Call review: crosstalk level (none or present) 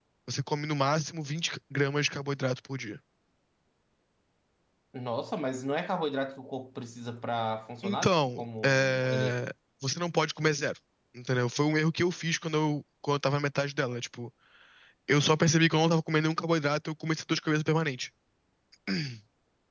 present